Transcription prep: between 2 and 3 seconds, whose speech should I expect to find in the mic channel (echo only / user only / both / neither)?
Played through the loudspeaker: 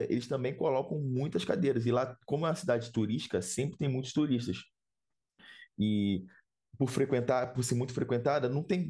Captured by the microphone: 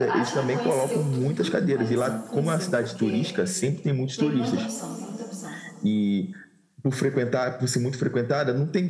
both